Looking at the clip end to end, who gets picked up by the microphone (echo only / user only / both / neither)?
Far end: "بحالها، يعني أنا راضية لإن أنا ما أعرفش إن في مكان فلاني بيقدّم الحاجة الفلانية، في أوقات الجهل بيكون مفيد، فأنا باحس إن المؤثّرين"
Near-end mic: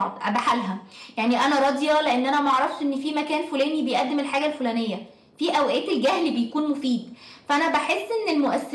echo only